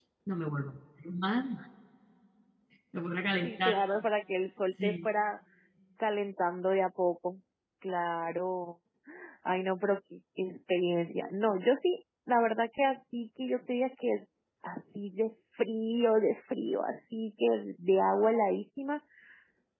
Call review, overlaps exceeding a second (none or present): none